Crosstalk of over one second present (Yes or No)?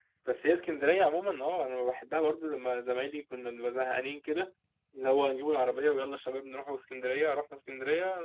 No